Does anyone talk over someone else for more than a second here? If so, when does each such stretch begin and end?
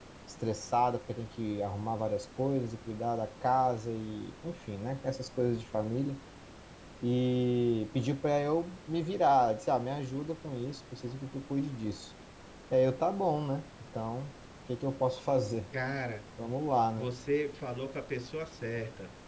none

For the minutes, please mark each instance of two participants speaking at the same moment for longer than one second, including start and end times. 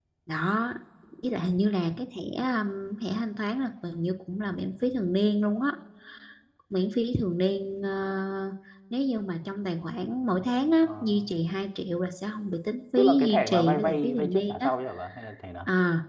12.9-14.7

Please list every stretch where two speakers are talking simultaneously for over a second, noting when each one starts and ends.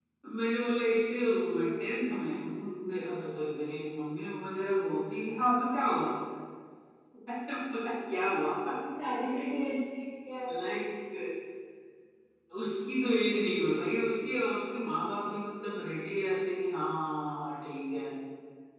none

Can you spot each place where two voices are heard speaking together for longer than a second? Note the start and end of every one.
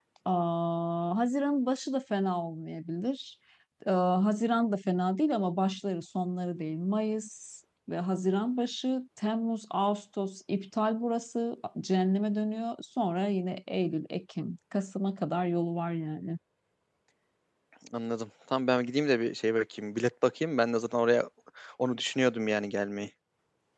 none

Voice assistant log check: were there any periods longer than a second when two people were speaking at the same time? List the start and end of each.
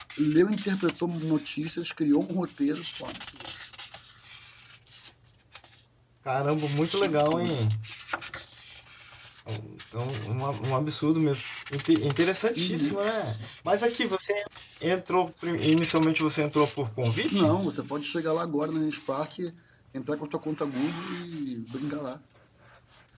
none

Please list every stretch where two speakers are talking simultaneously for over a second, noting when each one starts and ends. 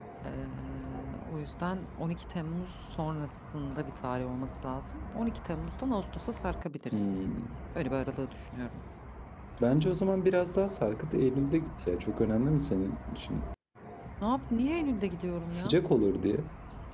none

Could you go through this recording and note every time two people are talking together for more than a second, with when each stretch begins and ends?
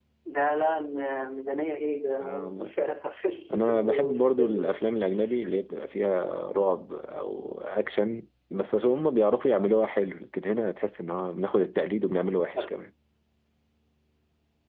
3.5-4.8

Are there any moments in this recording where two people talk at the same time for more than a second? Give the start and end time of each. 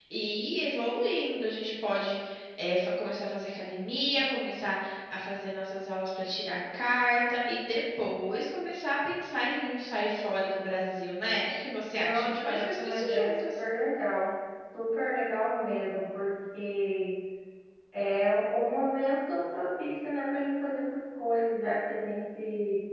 11.9-13.6

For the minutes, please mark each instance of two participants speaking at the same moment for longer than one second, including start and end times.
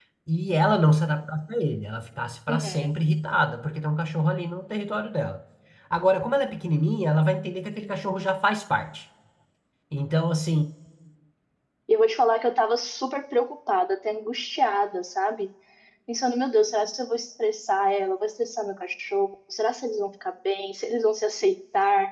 none

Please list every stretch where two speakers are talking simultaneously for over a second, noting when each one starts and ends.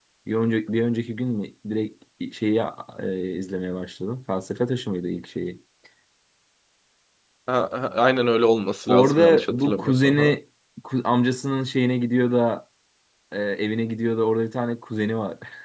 8.9-10.3

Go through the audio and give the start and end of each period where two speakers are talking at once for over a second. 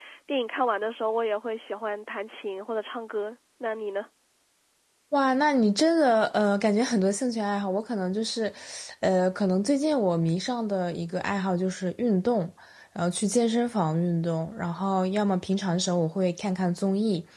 none

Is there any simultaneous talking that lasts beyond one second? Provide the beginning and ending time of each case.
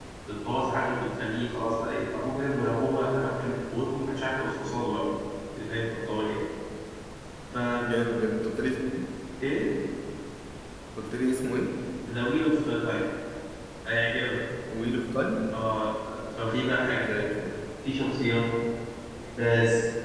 none

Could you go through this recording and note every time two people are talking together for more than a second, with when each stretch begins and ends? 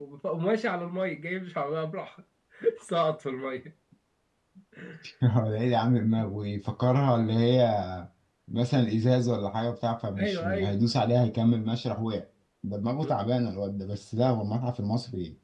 none

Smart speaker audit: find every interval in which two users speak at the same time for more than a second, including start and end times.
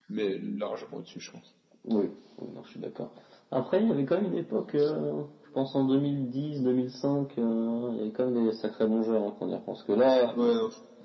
none

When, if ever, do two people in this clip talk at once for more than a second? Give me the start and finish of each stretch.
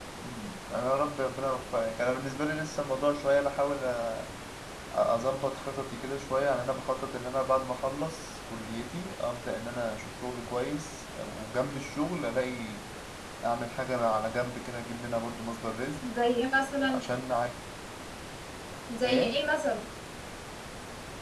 none

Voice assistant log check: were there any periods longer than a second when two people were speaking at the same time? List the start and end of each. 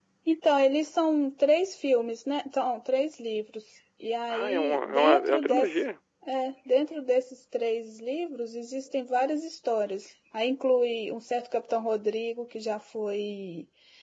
4.3-5.8

